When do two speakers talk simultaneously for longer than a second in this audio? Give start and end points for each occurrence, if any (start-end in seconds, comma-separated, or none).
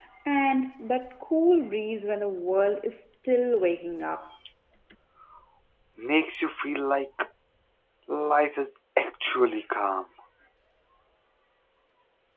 none